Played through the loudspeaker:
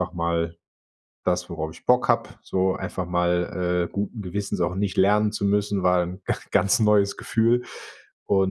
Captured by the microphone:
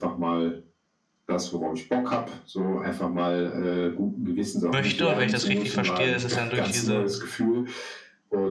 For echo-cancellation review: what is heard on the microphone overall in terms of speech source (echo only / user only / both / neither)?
both